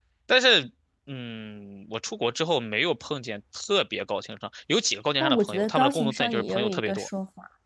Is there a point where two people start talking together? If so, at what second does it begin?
5.2 s

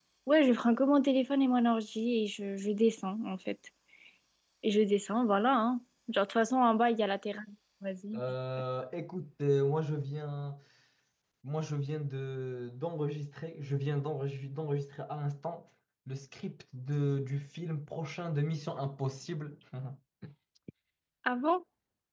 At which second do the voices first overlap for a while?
none

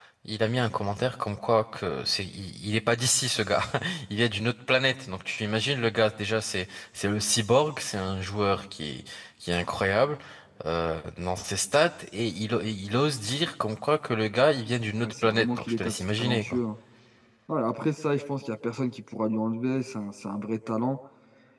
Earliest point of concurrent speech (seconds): 15.0 s

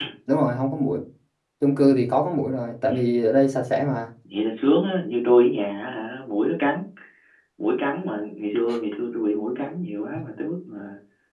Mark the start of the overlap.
none

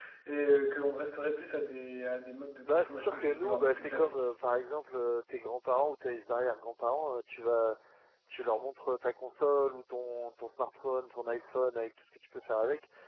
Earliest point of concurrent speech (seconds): 2.6 s

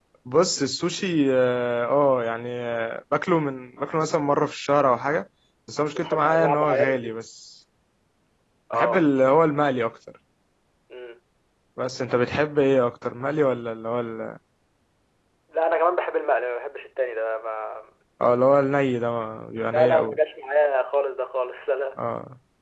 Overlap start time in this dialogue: 5.9 s

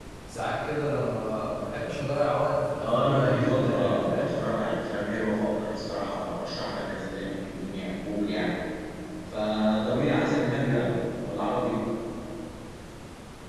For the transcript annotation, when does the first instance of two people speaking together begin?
2.8 s

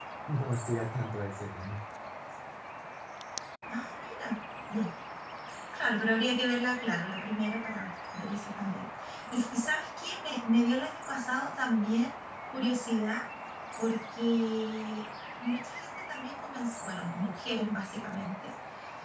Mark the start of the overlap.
none

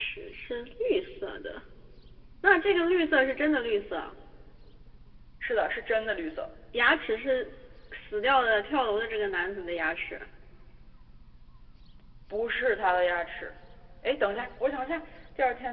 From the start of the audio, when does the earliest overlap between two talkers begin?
none

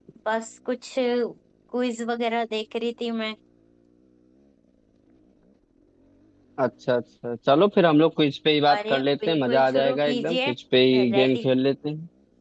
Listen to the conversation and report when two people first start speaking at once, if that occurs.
8.8 s

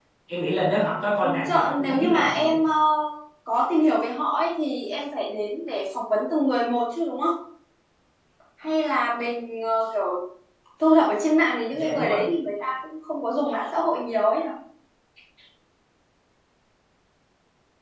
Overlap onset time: 1.2 s

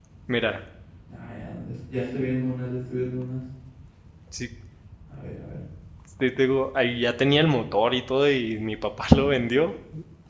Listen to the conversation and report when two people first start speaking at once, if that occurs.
none

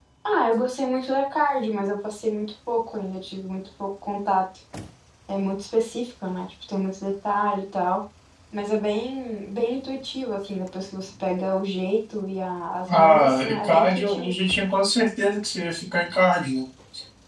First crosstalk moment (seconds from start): 12.9 s

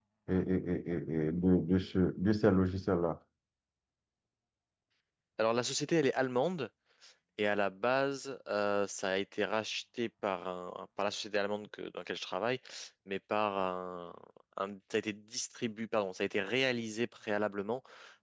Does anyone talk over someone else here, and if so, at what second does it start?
none

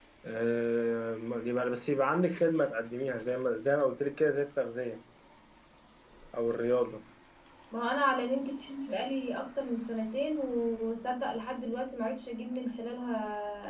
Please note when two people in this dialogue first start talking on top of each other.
none

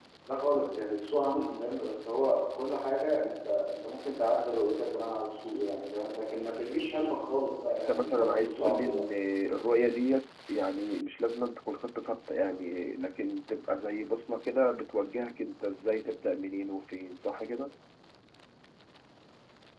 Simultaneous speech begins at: 7.8 s

